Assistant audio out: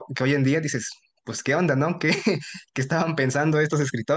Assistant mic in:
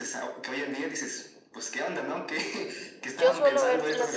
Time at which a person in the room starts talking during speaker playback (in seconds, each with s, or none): 3.1 s